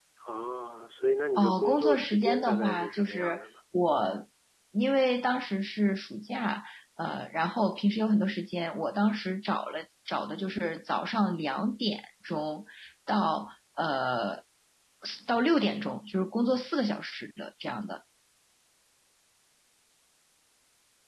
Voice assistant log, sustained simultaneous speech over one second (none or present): present